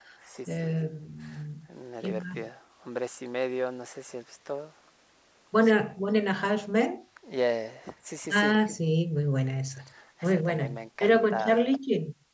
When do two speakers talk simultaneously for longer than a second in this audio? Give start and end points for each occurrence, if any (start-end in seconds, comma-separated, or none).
10.2-11.6